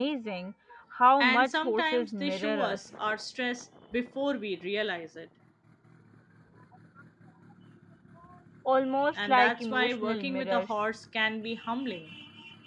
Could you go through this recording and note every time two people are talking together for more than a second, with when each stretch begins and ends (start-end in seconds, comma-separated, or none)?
1.2-2.8, 9.2-10.7